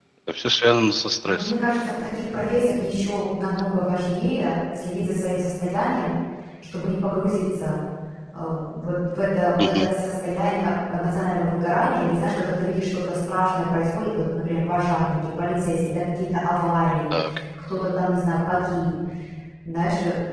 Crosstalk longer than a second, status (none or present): none